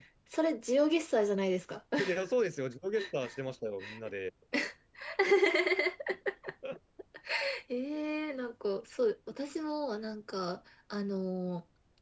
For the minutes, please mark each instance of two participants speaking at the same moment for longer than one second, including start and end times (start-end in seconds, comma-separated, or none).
none